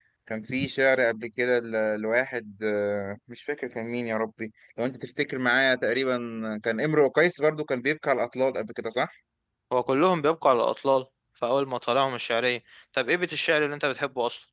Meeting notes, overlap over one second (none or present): none